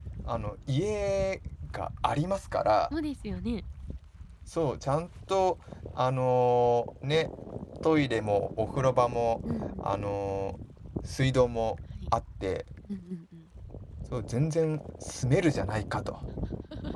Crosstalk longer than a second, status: none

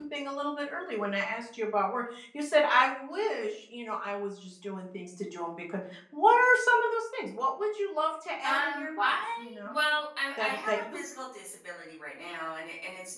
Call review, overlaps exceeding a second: present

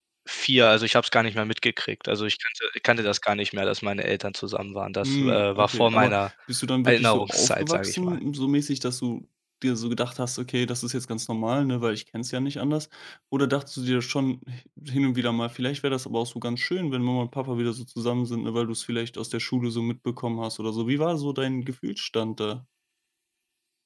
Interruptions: present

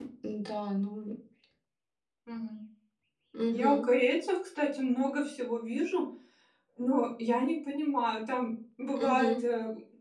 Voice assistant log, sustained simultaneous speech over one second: none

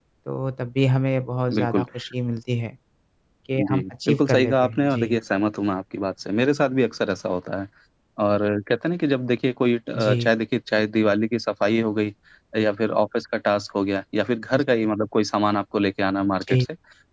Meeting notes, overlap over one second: present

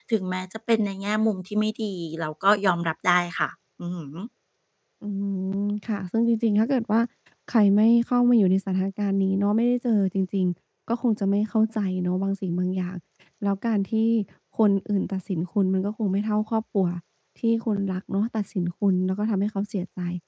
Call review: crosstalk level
none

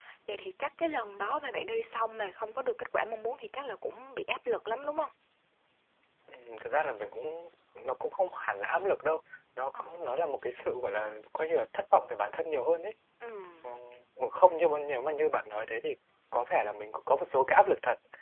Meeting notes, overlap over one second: none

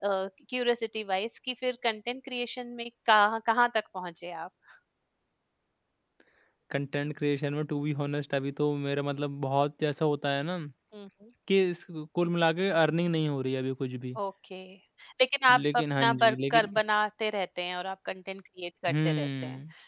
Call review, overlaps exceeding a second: present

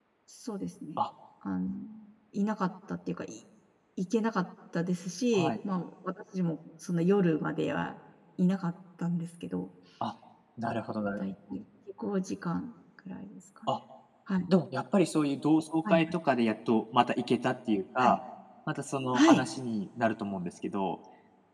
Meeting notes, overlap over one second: none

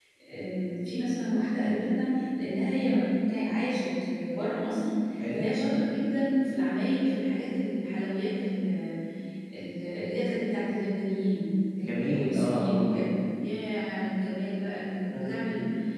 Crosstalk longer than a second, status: present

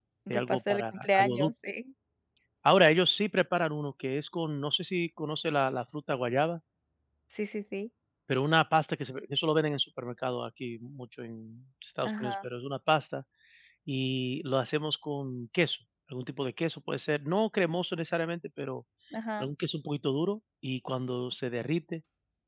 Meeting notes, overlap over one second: present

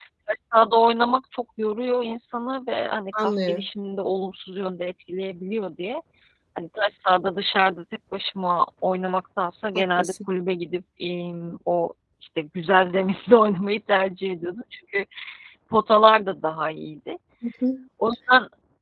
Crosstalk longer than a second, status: none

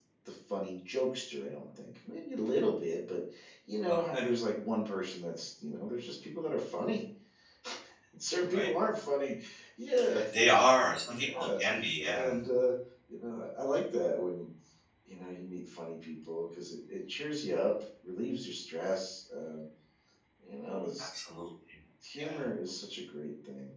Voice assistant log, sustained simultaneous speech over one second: none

